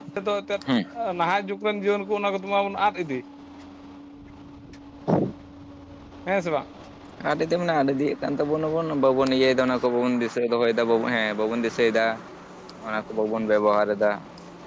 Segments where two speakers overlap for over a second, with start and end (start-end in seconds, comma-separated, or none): none